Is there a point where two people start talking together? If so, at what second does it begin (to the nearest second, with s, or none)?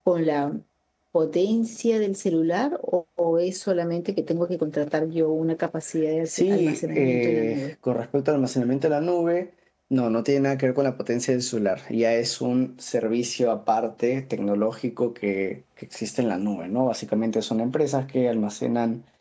6 s